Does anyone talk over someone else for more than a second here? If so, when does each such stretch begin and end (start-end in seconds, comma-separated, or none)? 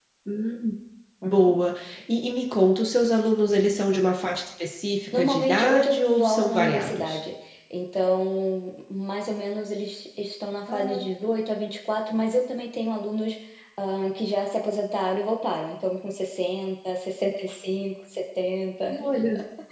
5.1-7.2